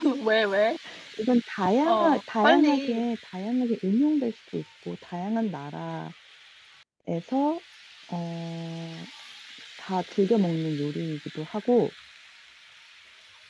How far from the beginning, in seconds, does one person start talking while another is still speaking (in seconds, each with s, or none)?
1.8 s